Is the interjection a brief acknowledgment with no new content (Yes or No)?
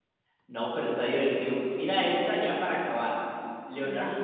Yes